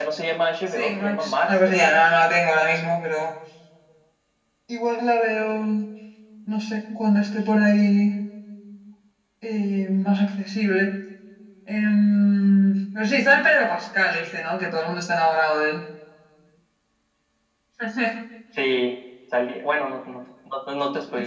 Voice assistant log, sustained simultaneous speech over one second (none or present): present